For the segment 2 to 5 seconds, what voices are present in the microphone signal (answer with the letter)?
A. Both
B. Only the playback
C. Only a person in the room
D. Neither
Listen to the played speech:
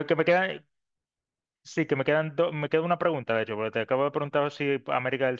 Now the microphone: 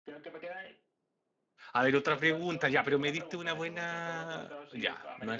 A